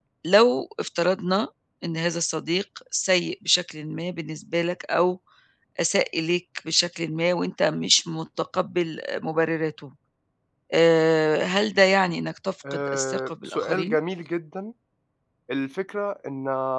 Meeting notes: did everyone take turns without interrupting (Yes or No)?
No